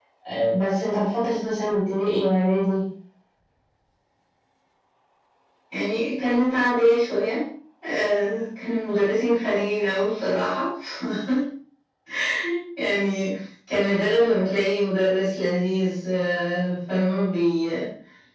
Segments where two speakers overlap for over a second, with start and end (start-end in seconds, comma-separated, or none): none